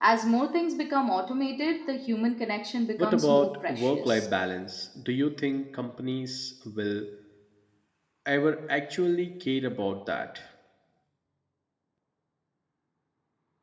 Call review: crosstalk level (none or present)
present